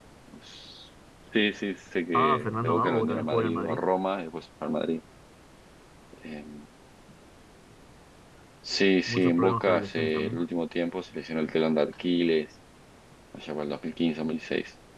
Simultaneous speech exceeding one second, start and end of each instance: 2.1-3.8, 9.1-10.4

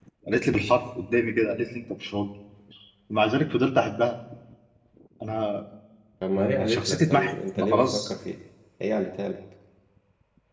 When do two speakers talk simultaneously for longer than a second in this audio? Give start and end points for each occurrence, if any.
6.3-8.1

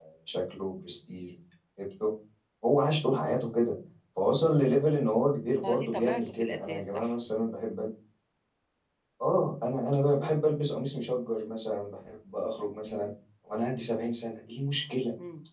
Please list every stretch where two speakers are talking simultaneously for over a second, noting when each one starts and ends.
5.6-7.1

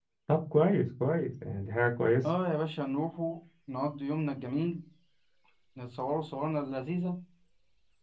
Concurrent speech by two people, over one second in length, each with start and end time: none

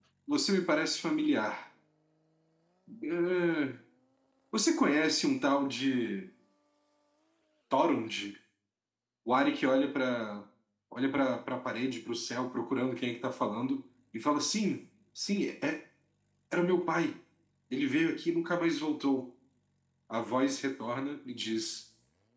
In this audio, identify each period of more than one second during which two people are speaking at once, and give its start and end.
none

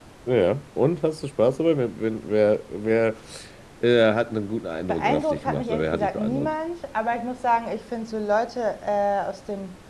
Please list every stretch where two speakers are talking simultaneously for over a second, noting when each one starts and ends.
4.9-6.5

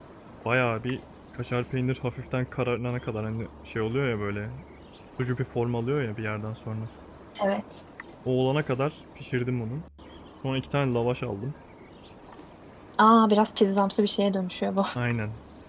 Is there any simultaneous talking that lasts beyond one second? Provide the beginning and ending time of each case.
none

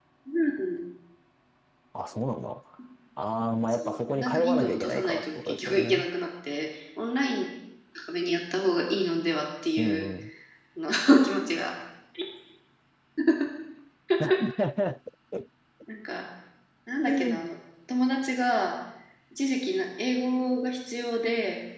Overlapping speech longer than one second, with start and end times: 3.7-6.0

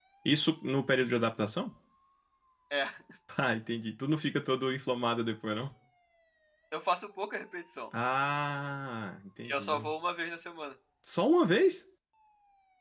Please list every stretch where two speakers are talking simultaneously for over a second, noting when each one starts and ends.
none

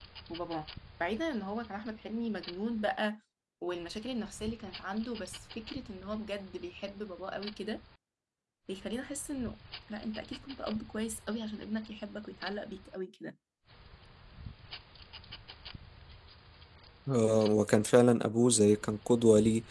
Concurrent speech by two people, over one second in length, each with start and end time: none

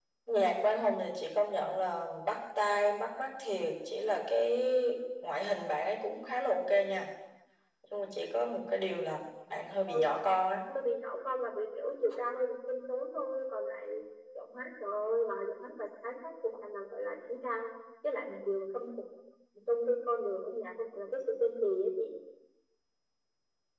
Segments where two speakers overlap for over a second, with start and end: none

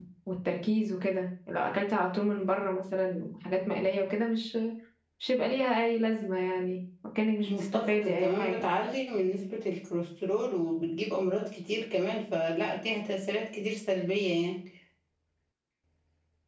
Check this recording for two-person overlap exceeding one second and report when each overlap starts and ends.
7.4-8.7

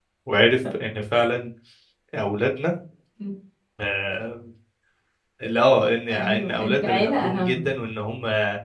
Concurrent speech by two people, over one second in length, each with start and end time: 6.1-7.7

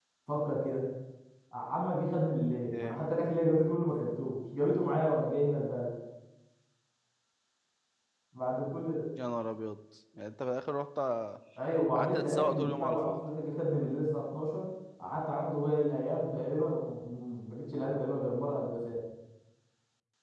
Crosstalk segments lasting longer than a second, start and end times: 11.9-13.2

